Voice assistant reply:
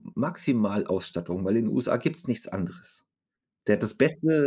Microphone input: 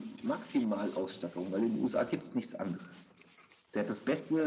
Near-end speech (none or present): none